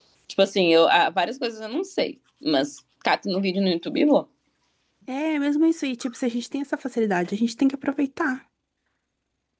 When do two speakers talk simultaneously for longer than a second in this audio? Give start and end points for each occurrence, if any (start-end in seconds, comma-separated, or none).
none